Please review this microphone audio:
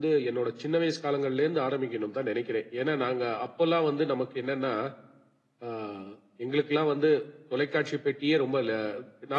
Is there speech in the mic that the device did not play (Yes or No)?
No